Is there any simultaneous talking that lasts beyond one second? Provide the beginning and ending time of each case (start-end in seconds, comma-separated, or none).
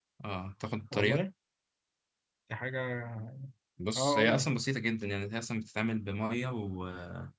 none